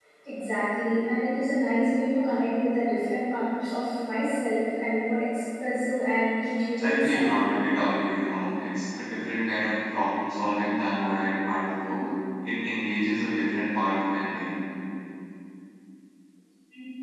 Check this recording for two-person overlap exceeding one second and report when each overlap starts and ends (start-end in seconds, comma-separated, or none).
none